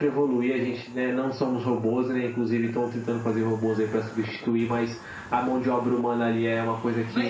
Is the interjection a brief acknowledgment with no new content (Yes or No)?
No